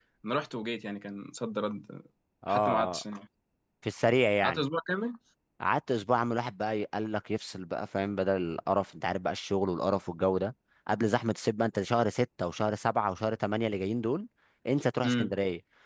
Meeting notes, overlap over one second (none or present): none